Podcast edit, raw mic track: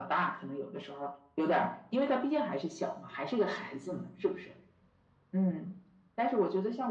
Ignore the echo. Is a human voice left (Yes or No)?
No